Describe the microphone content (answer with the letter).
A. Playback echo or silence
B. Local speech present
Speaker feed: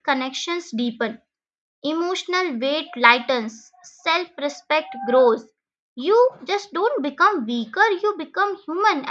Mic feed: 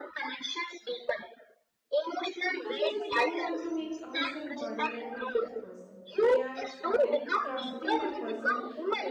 B